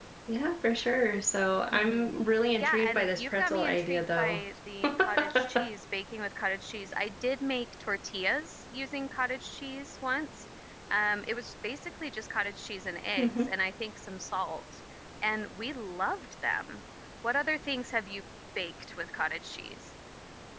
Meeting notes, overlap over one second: present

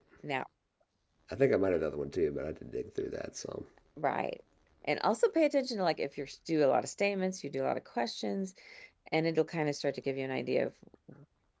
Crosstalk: none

